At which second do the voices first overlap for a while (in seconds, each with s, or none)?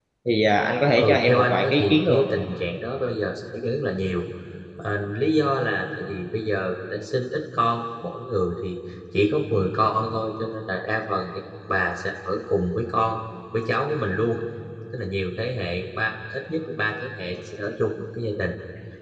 1.0 s